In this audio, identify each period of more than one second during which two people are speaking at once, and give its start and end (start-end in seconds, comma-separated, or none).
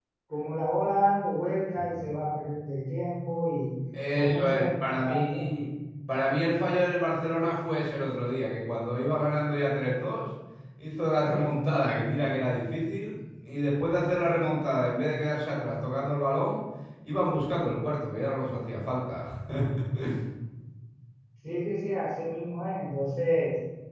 4.1-5.6